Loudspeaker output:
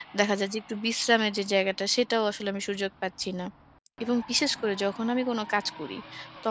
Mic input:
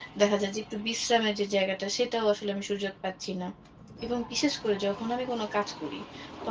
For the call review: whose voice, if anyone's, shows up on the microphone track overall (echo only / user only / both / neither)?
echo only